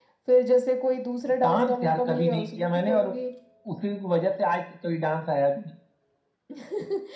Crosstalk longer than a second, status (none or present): present